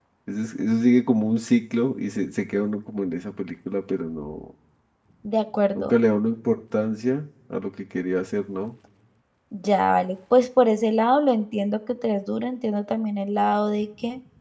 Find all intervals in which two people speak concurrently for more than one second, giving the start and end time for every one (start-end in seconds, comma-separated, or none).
none